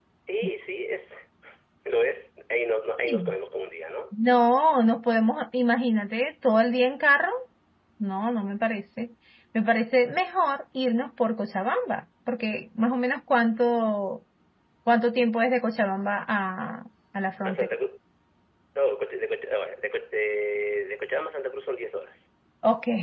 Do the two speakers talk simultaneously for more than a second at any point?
No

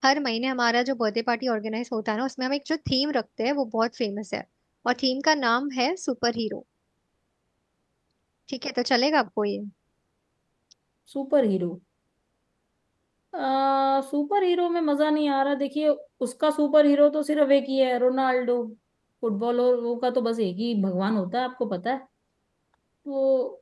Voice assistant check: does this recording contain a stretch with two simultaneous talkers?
No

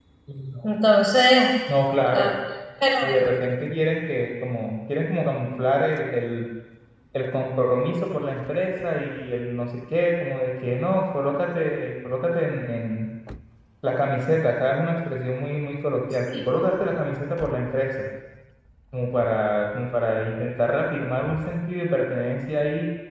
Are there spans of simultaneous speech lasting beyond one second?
No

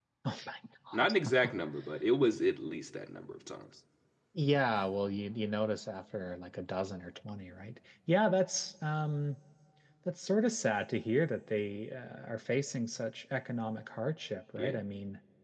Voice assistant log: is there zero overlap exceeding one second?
Yes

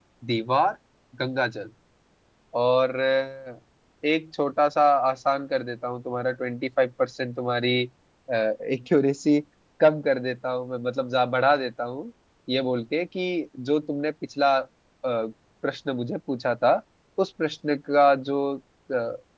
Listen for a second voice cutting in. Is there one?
No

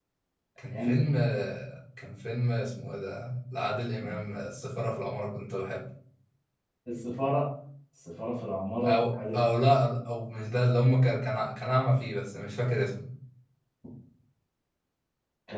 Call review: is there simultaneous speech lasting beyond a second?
No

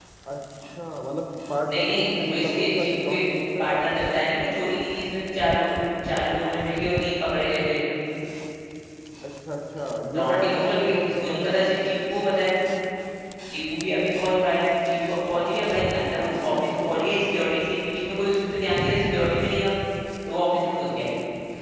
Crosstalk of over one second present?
Yes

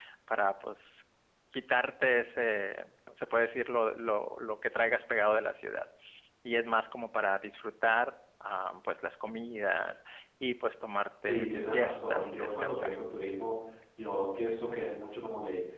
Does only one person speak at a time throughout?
No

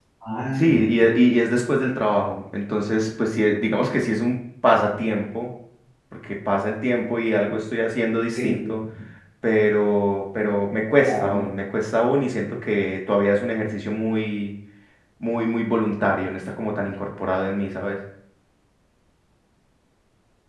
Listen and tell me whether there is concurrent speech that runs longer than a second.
No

